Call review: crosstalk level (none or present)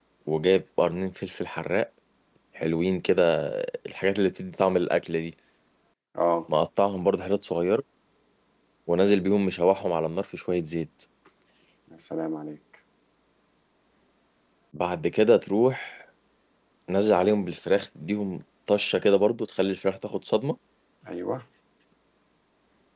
none